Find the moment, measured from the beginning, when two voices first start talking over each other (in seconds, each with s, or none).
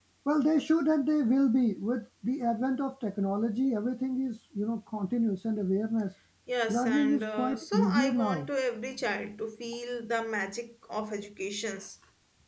6.7 s